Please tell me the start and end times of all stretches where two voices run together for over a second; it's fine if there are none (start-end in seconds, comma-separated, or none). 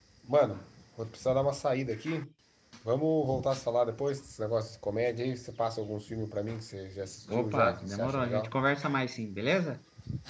7.3-8.6